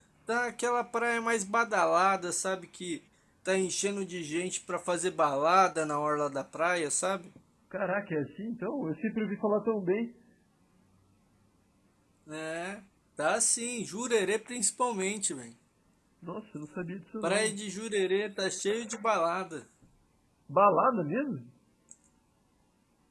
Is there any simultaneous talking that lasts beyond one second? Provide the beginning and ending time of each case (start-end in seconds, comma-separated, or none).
none